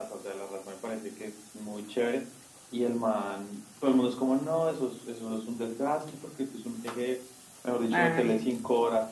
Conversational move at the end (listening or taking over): listening